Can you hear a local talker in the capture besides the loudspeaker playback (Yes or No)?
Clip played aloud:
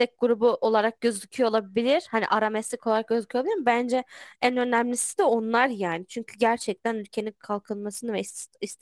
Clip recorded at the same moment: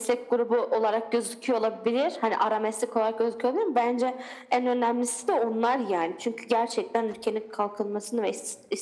No